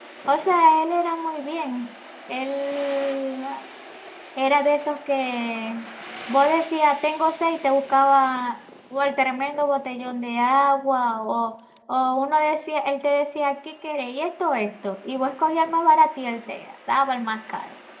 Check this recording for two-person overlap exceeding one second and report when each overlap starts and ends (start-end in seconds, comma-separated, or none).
none